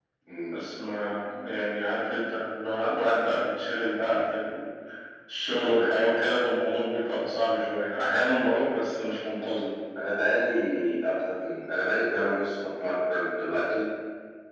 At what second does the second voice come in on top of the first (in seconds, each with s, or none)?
none